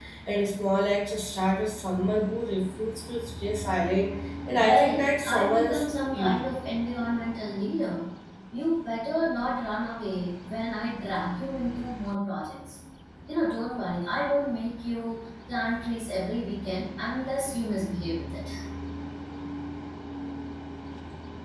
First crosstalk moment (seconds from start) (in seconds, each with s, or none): 4.6 s